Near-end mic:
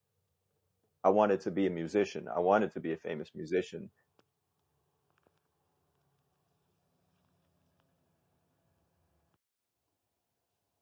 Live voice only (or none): I wanted to be a musician. I wanted to be a famous musician,